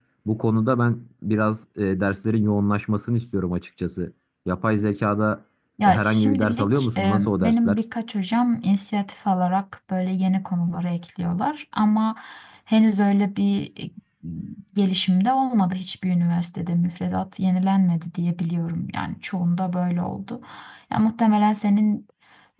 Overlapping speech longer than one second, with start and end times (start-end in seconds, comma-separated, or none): 5.8-7.8